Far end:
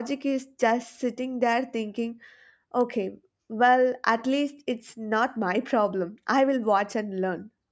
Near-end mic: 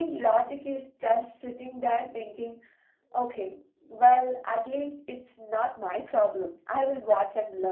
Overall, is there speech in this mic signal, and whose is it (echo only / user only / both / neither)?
echo only